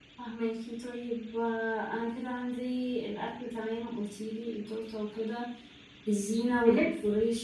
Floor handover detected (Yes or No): No